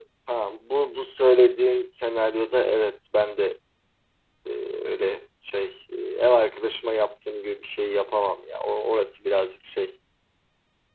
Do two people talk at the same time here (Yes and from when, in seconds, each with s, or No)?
No